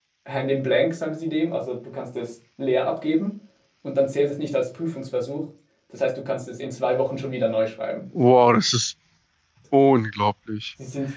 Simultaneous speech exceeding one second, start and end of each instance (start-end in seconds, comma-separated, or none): none